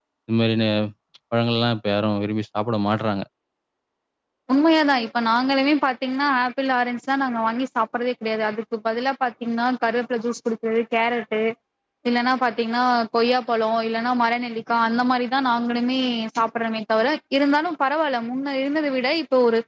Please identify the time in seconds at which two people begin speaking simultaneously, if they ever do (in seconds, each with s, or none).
none